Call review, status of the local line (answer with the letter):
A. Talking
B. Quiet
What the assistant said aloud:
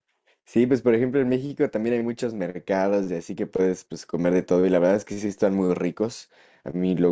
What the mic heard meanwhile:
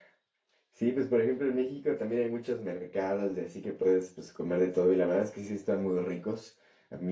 B